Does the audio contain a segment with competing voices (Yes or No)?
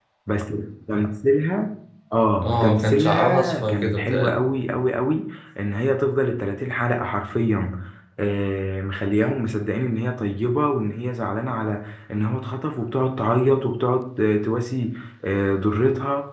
Yes